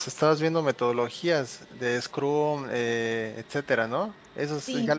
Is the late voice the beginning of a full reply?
Yes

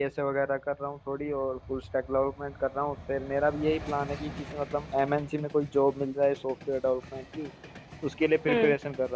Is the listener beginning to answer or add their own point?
No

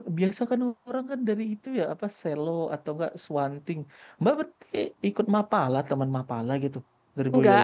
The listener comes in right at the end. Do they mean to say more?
Yes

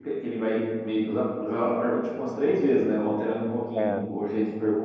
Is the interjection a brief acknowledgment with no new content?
Yes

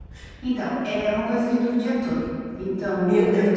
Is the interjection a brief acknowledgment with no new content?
Yes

